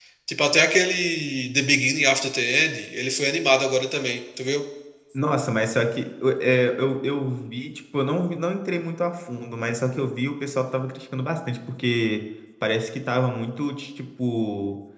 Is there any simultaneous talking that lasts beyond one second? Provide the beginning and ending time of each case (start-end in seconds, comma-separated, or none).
none